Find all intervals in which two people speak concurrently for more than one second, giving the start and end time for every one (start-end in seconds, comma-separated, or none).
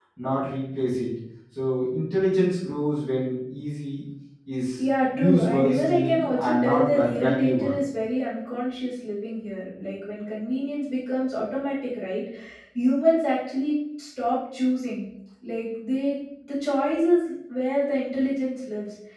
5.2-7.8